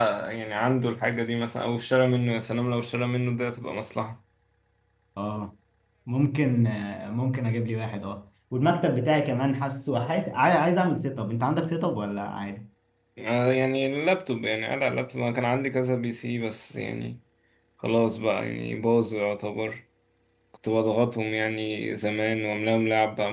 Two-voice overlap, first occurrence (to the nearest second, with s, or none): none